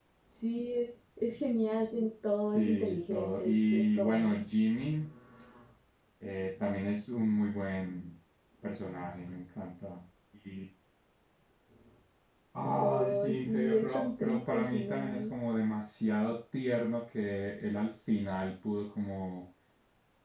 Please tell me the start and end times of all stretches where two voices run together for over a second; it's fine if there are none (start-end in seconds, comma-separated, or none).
2.5-4.4, 12.8-15.3